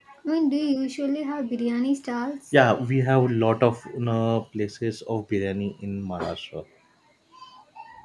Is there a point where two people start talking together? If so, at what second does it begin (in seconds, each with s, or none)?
none